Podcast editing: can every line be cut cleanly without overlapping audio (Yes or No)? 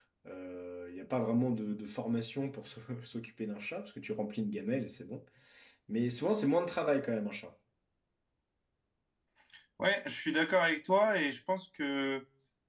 Yes